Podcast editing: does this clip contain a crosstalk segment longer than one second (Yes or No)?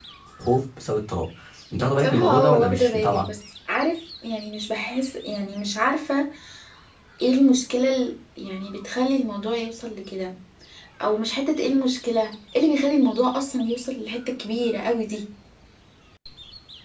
Yes